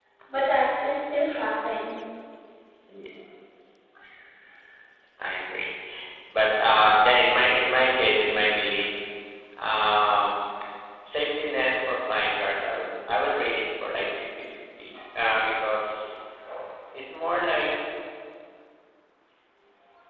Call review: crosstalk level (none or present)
none